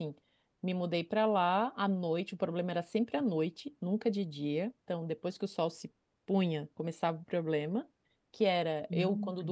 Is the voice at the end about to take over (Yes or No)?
No